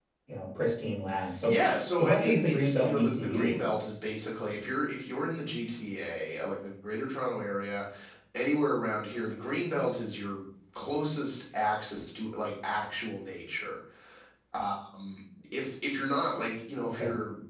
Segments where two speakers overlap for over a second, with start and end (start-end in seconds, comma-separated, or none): 2.0-3.5